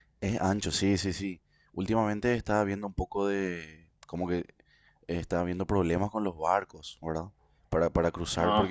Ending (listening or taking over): listening